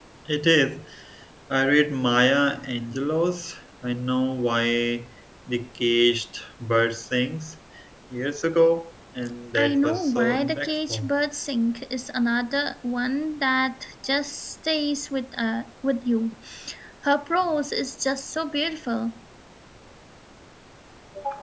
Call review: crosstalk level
present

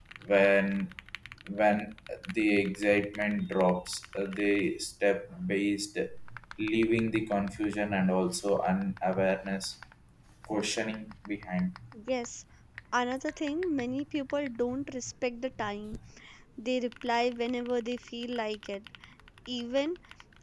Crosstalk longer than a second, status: none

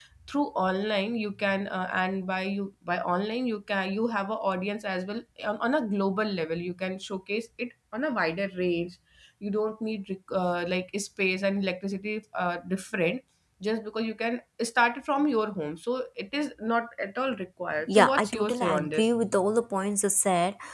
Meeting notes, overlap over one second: present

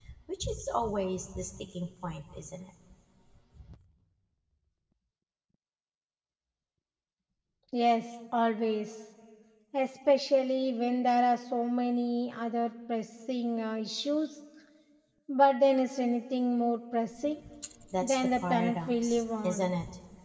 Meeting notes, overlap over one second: present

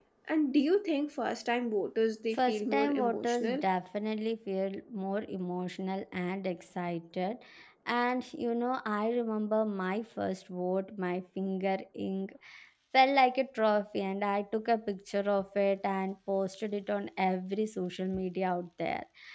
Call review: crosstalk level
present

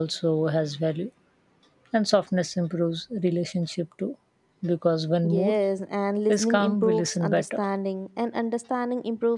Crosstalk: present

